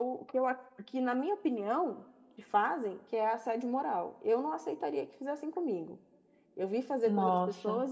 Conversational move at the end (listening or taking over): listening